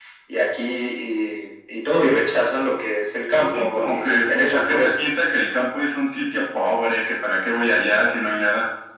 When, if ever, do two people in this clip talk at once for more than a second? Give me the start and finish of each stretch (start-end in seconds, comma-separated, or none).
3.4-4.9